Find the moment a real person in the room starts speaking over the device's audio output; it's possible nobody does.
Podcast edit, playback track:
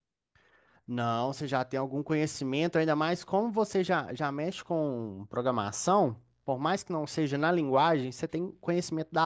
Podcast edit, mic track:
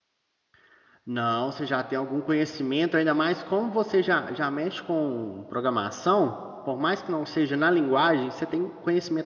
none

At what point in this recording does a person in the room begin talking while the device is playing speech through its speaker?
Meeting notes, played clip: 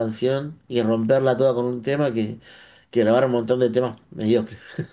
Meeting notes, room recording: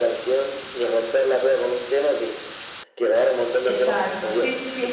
4 s

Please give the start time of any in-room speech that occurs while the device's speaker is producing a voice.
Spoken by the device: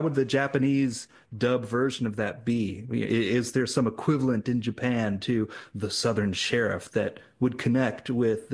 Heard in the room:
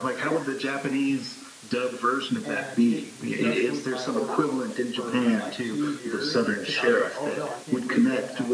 2 s

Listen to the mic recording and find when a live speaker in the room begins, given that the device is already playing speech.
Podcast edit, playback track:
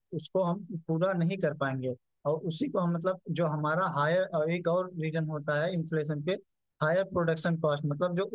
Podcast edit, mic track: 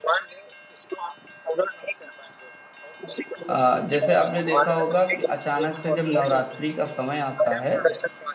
3 s

